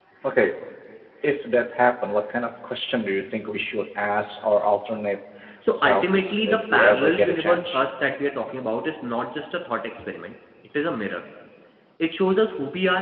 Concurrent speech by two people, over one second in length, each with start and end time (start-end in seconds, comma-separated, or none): 5.7-7.8